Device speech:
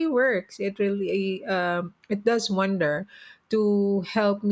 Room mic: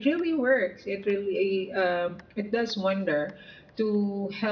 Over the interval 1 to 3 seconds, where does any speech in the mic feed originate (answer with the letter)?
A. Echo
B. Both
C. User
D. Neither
A